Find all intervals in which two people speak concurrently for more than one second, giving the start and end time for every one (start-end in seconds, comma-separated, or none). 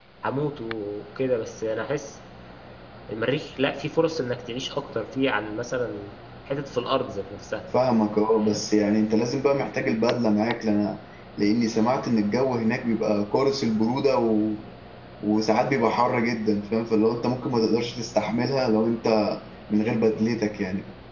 none